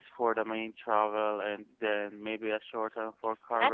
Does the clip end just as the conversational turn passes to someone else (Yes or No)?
Yes